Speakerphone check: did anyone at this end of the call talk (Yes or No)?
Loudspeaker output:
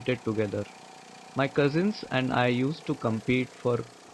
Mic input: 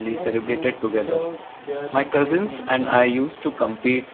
Yes